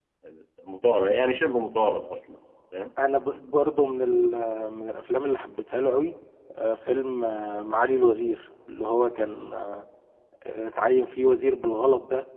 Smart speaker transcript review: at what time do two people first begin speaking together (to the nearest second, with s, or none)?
none